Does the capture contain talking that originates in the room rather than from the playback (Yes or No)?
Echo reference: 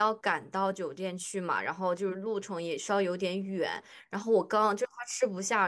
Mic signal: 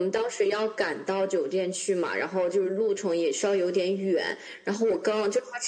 No